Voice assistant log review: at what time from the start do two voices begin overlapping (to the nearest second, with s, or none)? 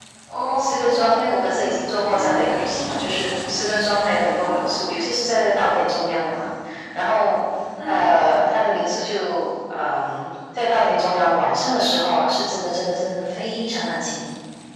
1 s